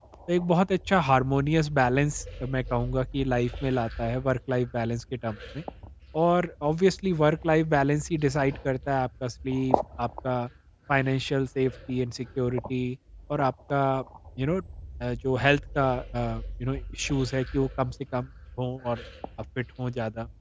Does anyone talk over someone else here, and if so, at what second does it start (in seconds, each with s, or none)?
none